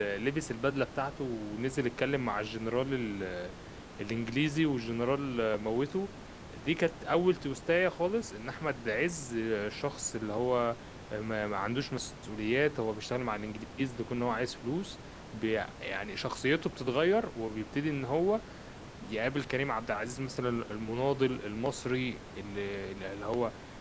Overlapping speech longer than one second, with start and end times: none

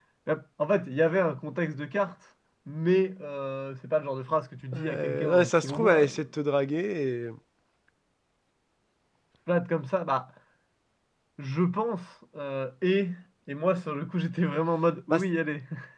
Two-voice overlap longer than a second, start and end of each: 4.8-6.2

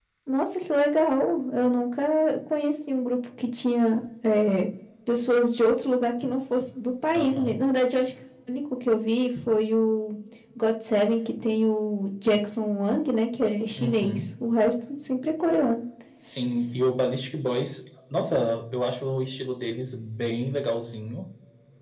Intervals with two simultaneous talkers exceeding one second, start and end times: none

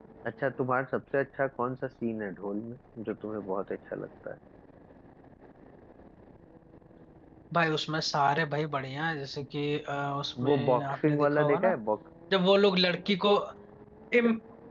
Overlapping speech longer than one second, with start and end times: 10.4-11.7

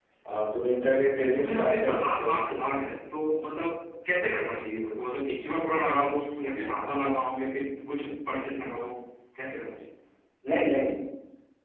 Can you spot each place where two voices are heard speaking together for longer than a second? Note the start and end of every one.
0.9-2.3

